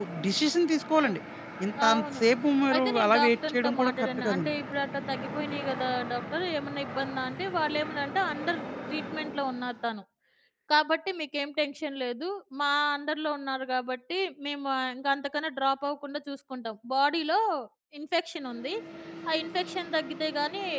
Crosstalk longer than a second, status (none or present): present